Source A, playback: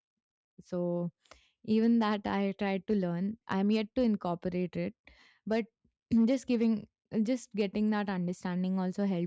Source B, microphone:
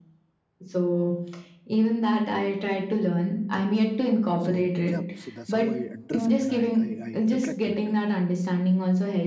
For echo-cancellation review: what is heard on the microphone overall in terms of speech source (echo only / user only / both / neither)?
both